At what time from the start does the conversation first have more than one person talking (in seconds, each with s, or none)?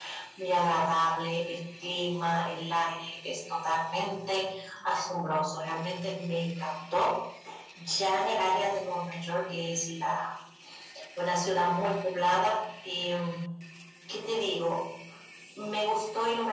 none